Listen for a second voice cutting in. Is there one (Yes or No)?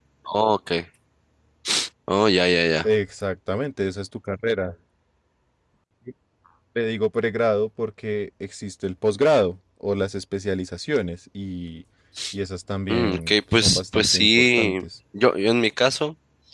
Yes